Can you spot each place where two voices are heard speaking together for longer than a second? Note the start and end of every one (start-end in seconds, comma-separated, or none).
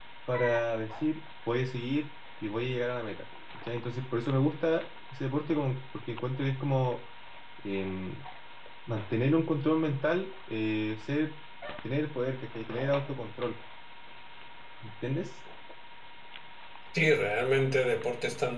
none